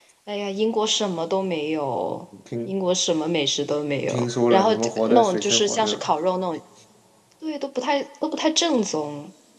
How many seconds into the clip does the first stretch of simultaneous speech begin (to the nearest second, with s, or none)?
4 s